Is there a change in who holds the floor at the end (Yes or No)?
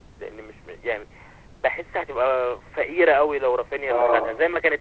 No